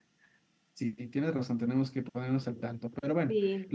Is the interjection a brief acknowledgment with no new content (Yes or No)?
Yes